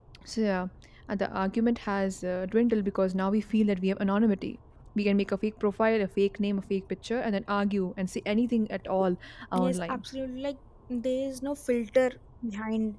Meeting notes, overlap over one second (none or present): none